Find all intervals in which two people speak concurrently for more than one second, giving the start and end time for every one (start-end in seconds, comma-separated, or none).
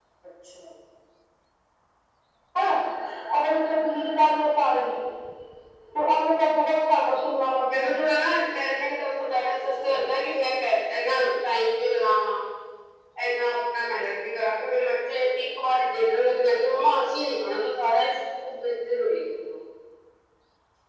none